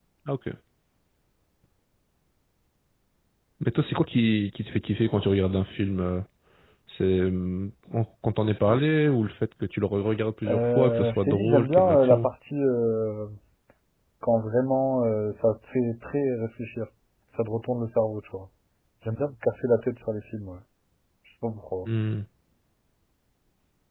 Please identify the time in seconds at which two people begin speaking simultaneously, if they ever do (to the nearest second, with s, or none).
10 s